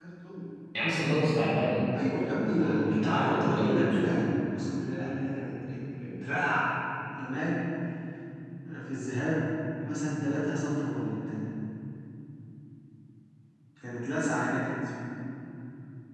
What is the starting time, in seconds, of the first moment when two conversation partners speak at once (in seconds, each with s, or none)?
2.4 s